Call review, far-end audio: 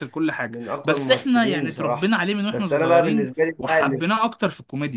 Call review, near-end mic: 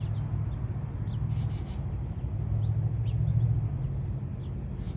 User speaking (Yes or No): No